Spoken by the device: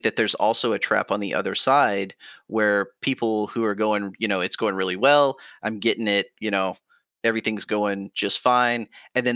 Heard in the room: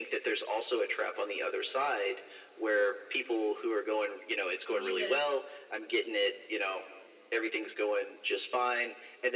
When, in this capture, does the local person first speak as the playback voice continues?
4.7 s

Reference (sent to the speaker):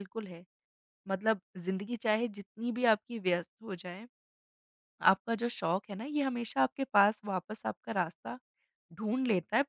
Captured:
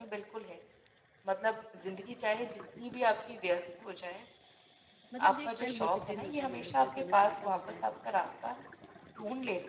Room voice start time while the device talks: 5.1 s

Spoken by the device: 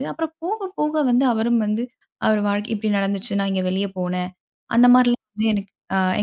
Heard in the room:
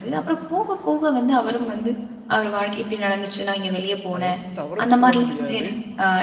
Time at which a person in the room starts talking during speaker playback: 4.1 s

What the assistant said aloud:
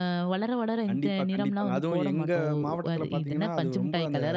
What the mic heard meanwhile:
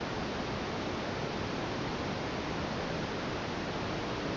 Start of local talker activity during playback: none

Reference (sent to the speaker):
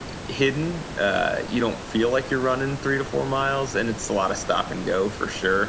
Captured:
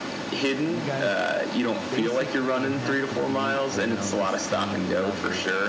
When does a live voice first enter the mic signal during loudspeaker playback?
0.6 s

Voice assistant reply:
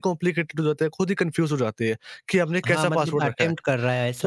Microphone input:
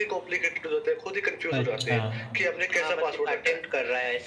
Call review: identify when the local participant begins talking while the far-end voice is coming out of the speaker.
1.5 s

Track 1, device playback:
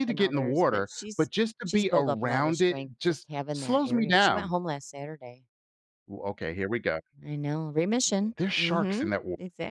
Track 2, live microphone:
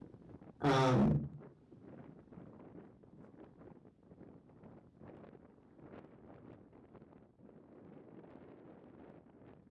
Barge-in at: 0.6 s

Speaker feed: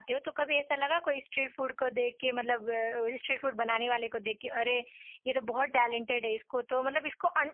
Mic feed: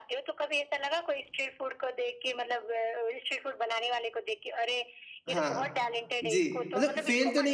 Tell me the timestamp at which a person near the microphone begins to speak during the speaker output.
5.3 s

